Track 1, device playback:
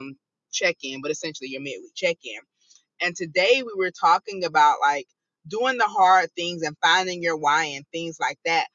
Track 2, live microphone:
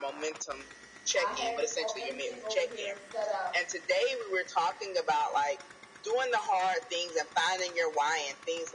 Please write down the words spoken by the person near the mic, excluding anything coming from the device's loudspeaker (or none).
I have all, everything over here set up,